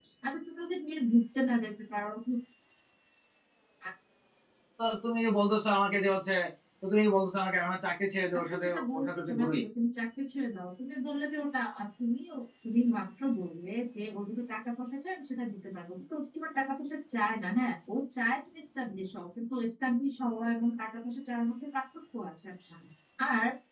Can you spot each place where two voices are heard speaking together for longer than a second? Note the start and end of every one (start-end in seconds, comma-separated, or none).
8.3-9.6